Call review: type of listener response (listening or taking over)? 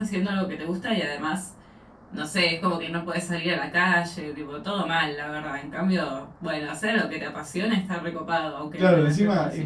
taking over